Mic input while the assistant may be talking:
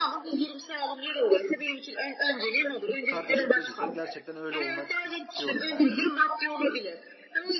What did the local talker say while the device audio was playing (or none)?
kardeşim dediysem gerçekten öyle olmak istiyorum yani. Hani